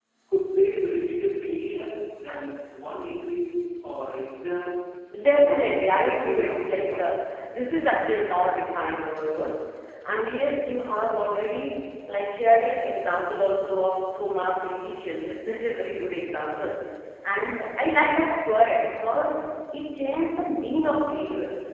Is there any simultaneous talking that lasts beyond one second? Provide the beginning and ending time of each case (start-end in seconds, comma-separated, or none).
5.2-7.0